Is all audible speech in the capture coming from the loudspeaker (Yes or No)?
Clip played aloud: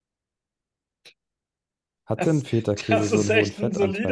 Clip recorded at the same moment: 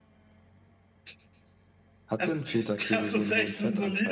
Yes